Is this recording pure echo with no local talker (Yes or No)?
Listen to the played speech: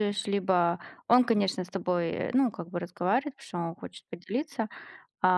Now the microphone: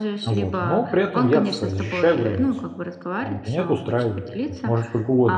No